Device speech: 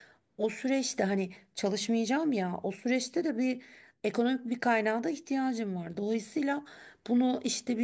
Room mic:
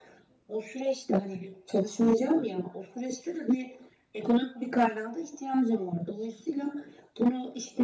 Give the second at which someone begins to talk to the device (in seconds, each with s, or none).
none